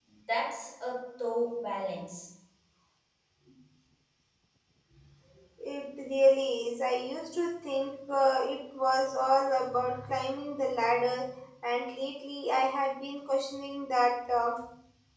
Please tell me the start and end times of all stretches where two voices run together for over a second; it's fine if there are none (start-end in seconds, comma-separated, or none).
none